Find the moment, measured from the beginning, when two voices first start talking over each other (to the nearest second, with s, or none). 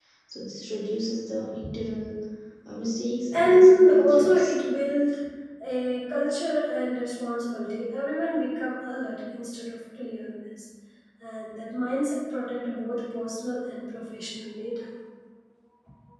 3 s